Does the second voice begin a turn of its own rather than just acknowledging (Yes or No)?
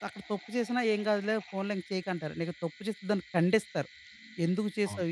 No